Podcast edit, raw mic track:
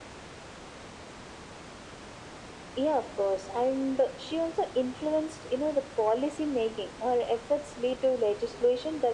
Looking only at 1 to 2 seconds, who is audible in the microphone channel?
neither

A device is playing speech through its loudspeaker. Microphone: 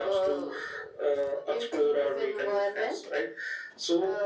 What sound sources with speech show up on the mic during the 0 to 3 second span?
echo only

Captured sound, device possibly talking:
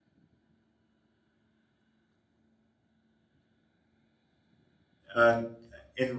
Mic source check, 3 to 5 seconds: neither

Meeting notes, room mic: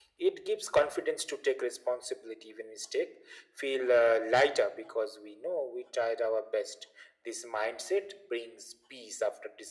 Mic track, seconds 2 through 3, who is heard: echo only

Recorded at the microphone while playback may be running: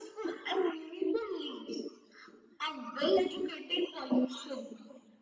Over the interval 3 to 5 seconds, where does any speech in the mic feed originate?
echo only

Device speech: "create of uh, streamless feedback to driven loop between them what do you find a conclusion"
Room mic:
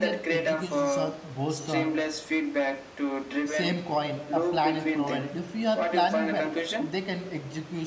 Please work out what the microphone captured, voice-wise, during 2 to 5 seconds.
both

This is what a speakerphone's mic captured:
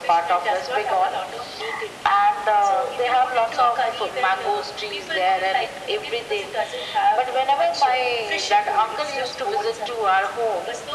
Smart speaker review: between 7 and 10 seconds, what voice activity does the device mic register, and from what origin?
echo only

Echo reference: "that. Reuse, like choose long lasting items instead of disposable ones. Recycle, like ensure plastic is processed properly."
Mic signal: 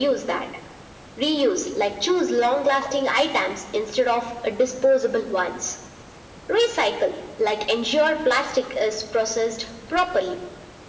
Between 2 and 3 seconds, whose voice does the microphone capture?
echo only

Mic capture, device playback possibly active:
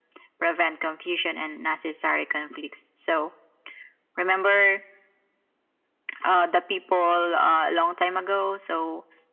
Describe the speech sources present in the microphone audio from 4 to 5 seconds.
echo only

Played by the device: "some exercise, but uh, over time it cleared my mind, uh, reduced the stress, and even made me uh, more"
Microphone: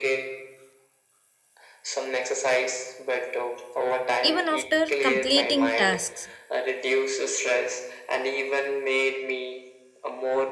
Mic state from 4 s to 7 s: both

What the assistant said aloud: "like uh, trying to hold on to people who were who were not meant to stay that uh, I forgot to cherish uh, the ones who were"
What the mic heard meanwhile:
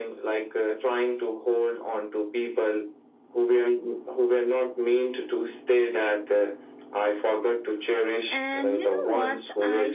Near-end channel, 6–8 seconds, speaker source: echo only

